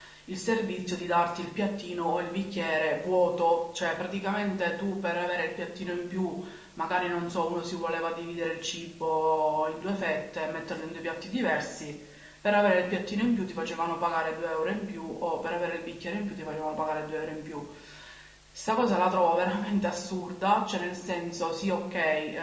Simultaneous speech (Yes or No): No